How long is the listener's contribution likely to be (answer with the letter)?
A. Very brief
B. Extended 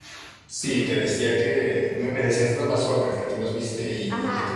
B